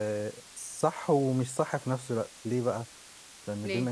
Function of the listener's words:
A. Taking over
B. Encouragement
B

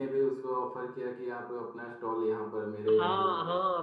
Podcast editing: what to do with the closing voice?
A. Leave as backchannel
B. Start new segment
B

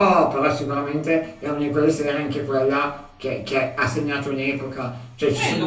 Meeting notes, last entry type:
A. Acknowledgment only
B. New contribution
A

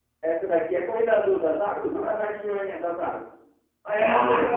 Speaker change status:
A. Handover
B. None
A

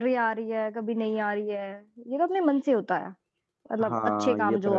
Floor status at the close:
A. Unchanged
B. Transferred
B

